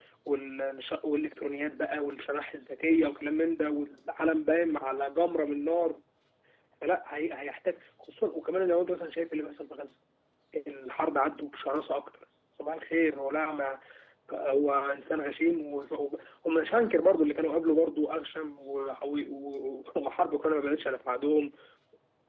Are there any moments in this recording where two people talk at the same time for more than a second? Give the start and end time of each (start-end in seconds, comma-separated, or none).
none